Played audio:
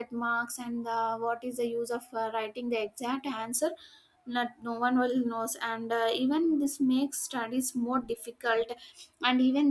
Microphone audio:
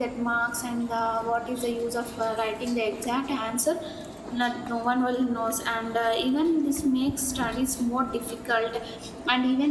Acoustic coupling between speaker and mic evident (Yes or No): Yes